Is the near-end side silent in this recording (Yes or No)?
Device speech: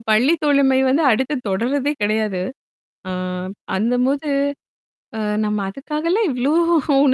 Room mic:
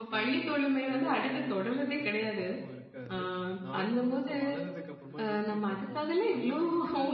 No